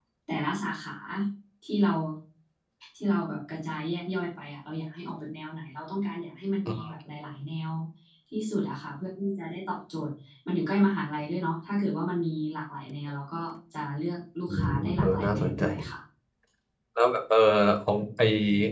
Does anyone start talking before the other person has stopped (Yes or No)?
Yes